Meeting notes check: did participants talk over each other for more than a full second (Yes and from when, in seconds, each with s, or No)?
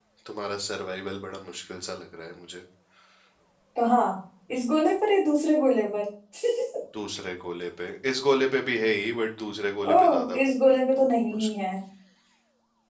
No